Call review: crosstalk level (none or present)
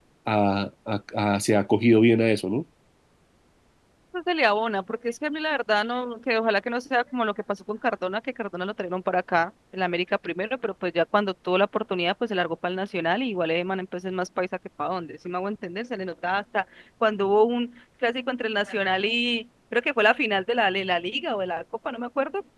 none